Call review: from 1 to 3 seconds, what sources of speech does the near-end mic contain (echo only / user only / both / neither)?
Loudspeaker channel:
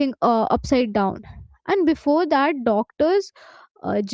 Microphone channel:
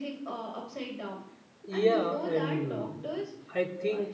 both